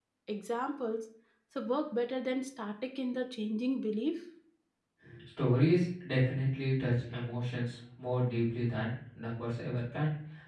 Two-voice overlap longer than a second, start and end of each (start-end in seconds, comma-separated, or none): none